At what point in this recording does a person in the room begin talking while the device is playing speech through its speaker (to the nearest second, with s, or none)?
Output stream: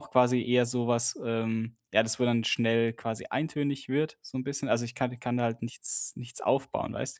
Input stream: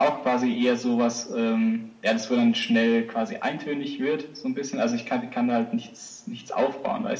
none